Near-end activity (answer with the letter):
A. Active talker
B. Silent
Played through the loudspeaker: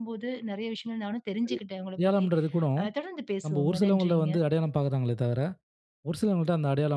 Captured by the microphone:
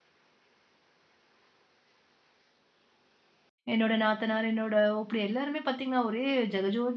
A